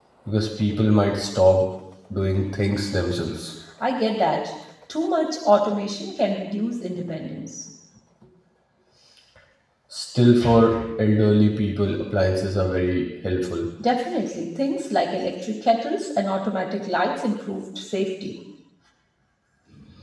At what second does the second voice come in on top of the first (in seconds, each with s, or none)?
none